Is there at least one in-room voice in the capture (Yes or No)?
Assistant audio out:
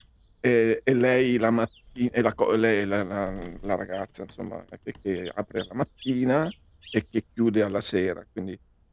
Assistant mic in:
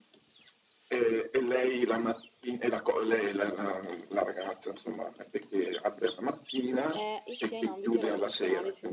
Yes